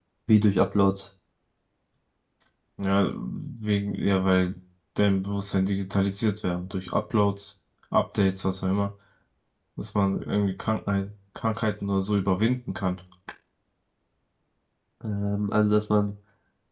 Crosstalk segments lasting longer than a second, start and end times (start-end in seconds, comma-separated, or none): none